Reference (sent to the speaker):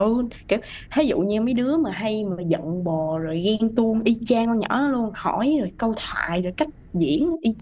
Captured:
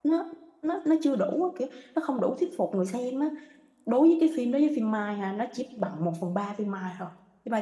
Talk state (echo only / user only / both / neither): user only